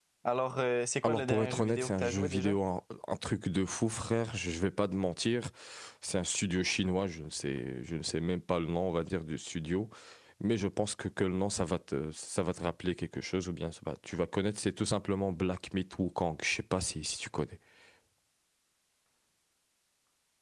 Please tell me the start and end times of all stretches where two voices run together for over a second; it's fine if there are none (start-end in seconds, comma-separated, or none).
1.0-2.6